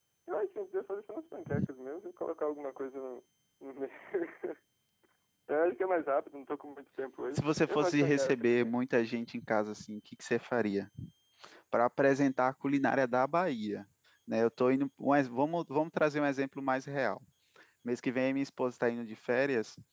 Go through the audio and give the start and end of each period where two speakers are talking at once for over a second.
7.4-8.7

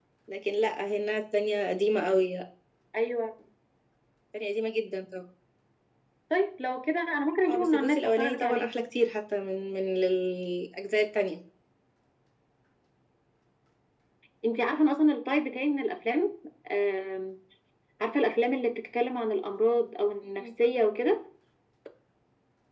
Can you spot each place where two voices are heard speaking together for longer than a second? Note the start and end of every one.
7.5-8.7

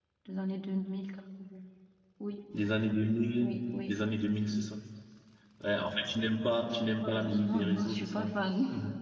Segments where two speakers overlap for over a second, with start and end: 7.0-8.3

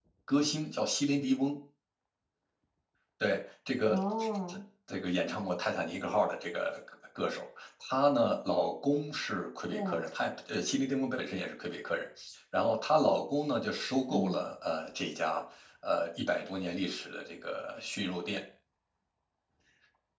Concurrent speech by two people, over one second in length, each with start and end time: none

